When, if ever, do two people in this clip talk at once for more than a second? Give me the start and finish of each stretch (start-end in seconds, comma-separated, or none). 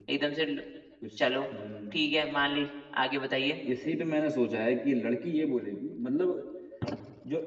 none